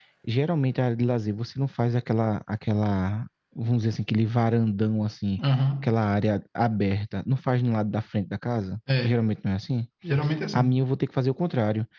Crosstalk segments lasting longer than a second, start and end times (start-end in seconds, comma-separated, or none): none